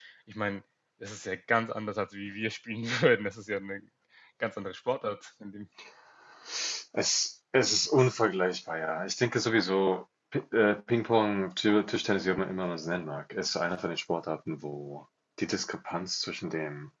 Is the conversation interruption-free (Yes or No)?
Yes